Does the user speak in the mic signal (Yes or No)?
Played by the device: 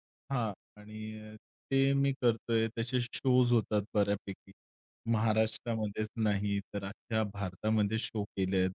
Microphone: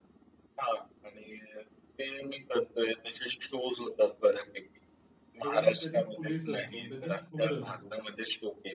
Yes